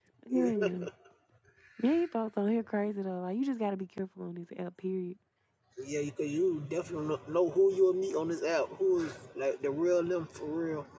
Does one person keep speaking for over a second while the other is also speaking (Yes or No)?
No